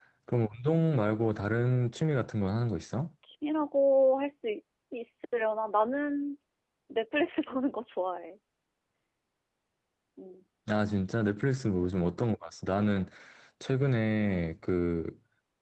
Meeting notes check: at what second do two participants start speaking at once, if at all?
none

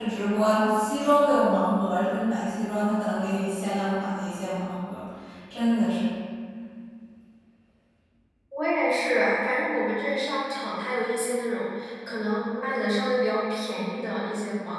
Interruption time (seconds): none

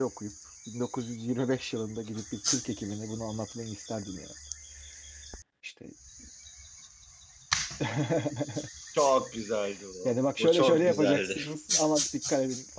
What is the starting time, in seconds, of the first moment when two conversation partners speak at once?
10.0 s

